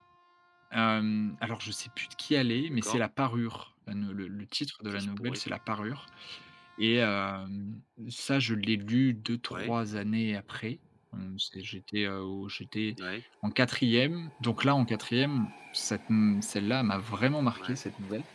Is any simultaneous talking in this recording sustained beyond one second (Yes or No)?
No